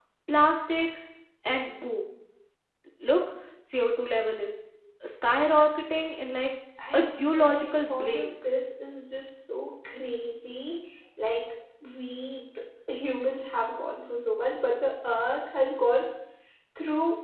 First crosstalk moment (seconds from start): 6.9 s

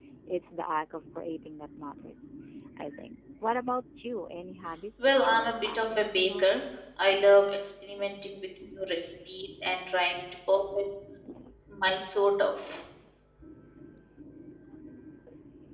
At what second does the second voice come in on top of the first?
5.2 s

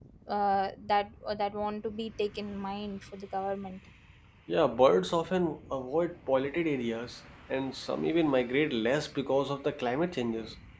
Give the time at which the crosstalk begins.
none

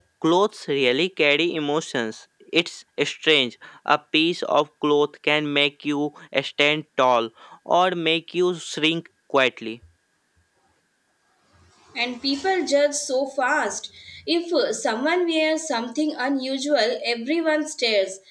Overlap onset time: none

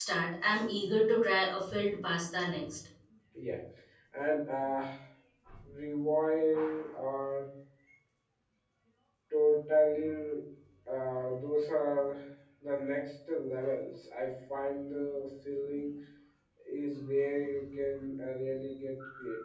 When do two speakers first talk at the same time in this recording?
none

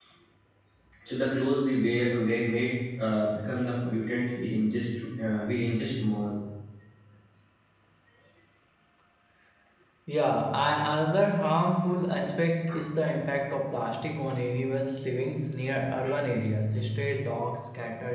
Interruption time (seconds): none

